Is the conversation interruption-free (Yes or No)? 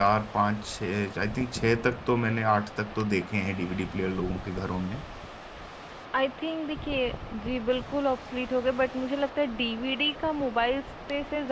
Yes